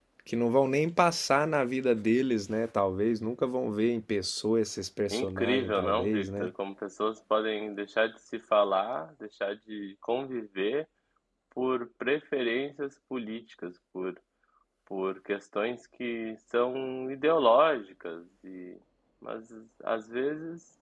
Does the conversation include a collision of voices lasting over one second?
Yes, from 5.1 s

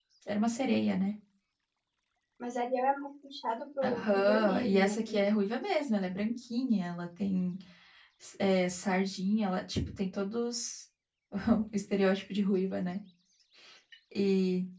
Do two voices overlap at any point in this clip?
Yes, from 3.8 s

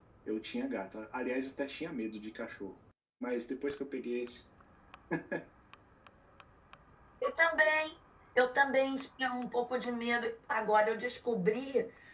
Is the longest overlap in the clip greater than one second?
No

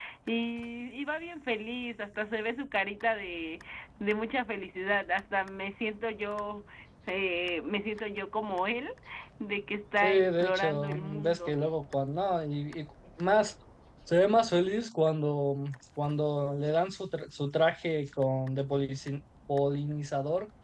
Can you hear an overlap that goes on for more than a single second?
Yes, from 10.0 s

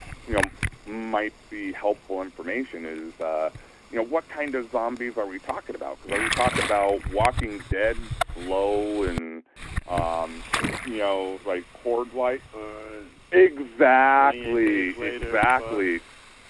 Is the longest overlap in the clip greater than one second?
Yes, from 14.1 s

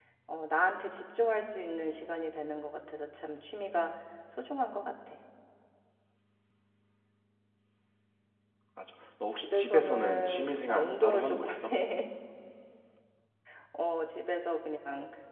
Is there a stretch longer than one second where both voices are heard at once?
Yes, from 9.3 s

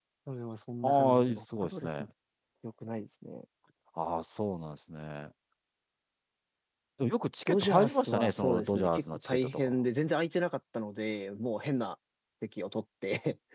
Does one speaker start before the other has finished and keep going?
Yes, from 0.8 s

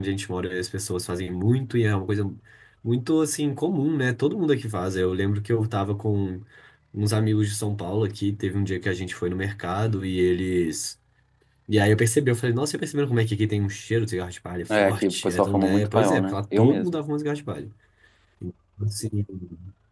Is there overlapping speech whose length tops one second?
Yes, from 14.7 s

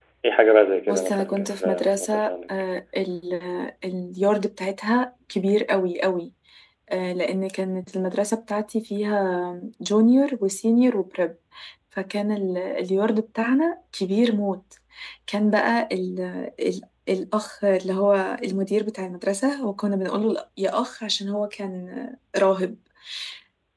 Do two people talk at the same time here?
Yes, from 0.9 s

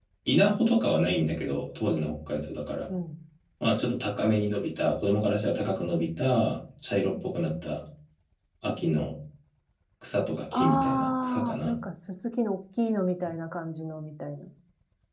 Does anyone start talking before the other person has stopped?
Yes, from 10.5 s

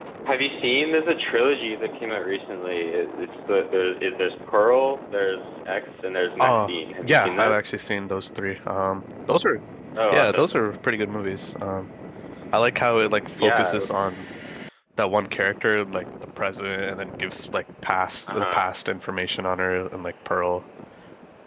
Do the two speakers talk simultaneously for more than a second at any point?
Yes, from 6.4 s

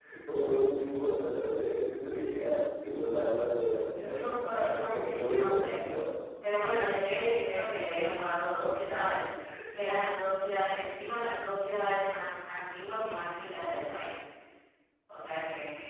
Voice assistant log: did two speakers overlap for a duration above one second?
Yes, from 4.1 s

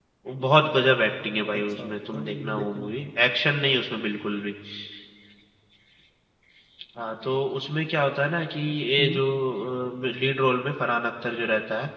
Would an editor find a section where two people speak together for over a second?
Yes, from 1.5 s

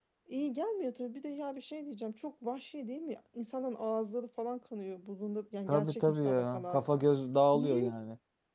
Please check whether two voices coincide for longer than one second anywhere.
Yes, from 5.7 s

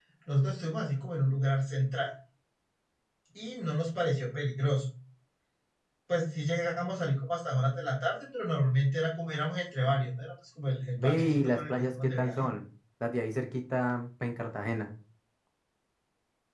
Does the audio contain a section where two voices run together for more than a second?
Yes, from 11.0 s

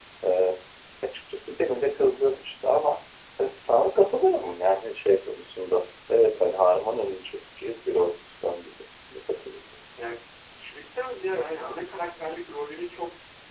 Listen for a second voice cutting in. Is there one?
No

